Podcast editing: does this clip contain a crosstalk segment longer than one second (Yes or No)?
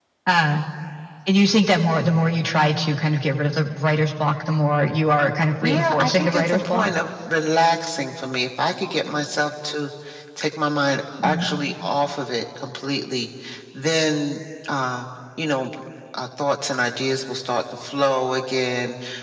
Yes